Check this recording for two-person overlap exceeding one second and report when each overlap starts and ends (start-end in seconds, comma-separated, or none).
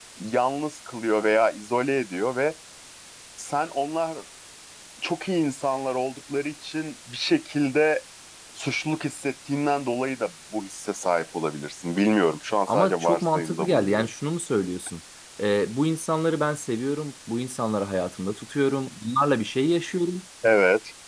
12.7-14.1